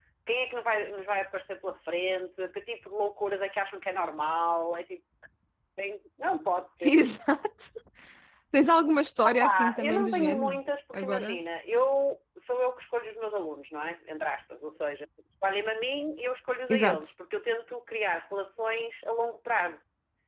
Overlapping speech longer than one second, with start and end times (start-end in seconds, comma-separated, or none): 9.2-10.6